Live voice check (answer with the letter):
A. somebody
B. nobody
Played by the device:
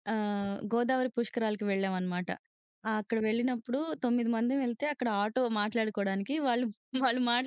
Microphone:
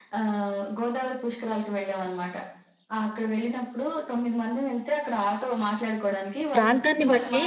A